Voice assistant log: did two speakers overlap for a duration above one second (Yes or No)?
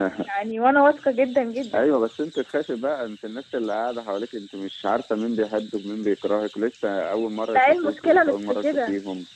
Yes